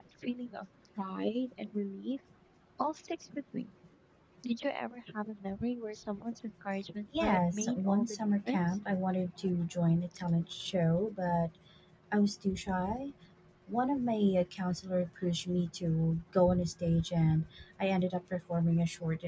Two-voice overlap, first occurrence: 7.1 s

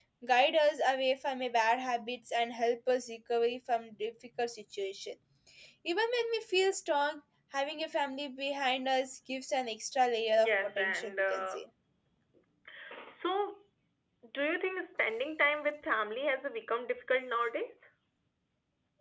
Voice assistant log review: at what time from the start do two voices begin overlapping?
10.4 s

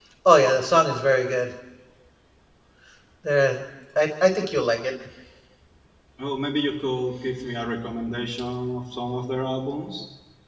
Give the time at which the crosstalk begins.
none

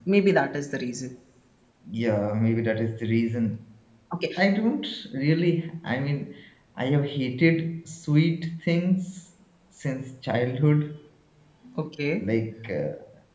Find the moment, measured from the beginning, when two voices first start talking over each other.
none

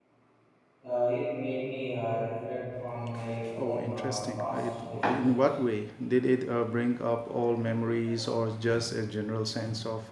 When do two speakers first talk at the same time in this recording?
3.6 s

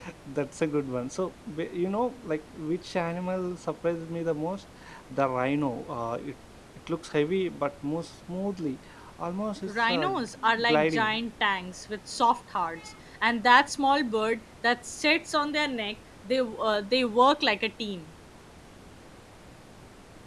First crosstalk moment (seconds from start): 9.7 s

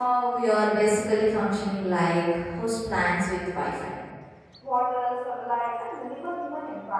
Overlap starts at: none

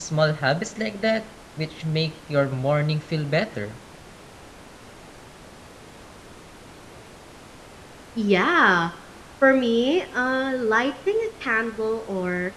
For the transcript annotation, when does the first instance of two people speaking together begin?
none

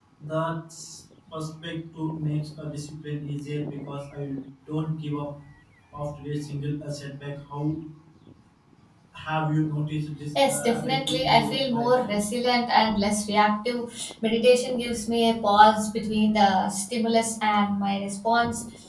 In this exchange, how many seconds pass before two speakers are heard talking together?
10.4 s

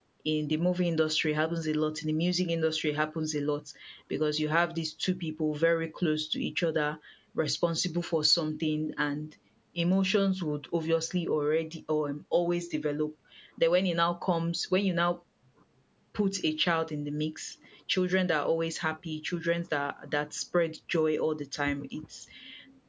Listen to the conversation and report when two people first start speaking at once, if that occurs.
none

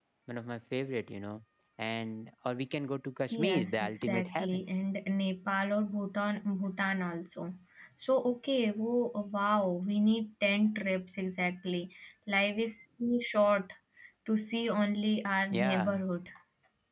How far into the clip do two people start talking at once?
3.3 s

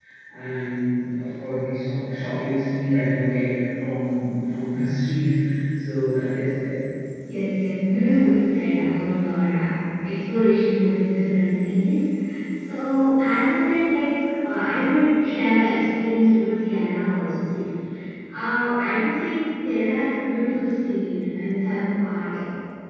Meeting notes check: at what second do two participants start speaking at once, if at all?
none

